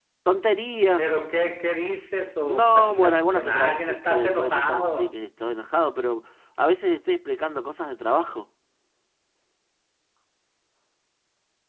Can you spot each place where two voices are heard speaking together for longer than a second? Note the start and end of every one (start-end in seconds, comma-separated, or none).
2.4-5.1